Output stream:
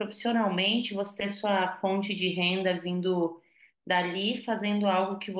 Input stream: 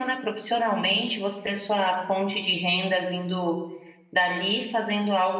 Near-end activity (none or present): none